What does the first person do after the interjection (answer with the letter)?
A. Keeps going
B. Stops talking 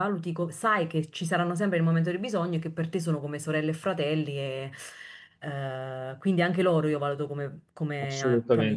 B